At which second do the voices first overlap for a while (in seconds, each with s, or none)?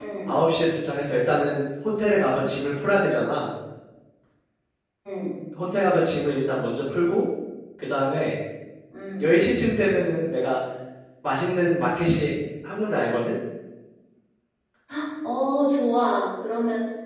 none